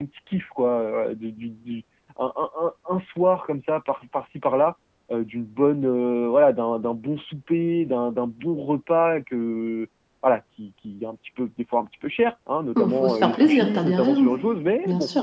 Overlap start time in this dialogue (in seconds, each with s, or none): 12.8 s